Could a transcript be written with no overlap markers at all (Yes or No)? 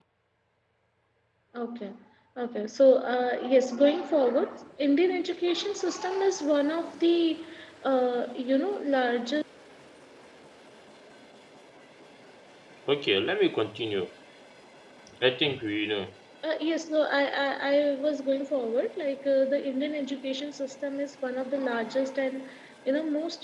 Yes